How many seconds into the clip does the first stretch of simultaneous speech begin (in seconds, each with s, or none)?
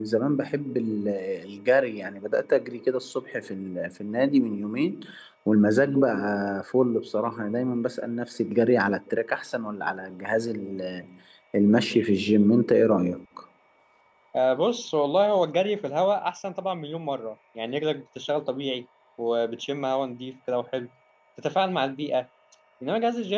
none